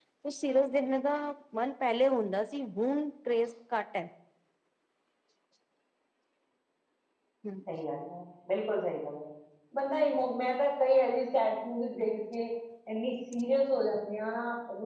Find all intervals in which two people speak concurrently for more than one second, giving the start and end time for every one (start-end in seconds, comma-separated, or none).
none